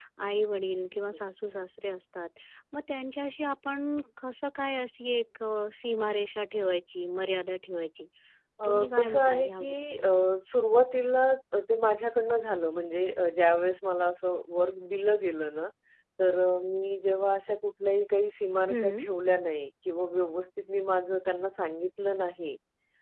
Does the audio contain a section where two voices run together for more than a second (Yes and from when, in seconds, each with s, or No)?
Yes, from 8.6 s